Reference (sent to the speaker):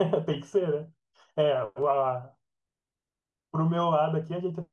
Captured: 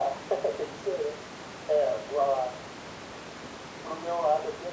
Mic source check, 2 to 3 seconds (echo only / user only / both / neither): echo only